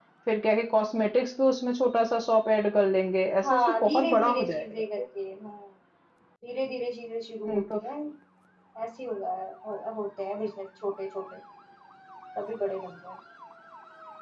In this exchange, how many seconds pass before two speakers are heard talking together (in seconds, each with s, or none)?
3.4 s